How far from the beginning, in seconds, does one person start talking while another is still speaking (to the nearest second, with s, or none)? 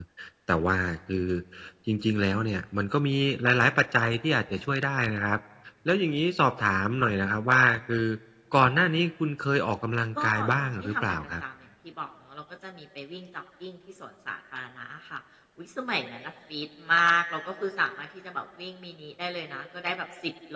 10 s